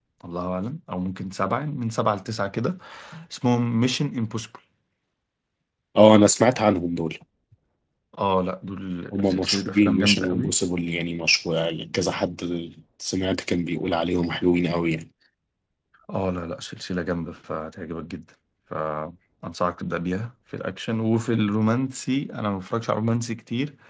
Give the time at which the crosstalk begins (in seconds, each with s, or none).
9.1 s